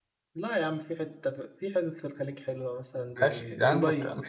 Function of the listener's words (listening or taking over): taking over